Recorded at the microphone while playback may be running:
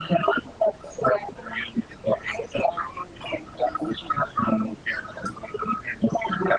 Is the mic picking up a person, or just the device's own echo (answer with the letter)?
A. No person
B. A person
A